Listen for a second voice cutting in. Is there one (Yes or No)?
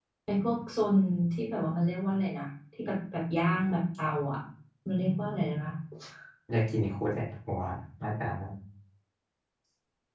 No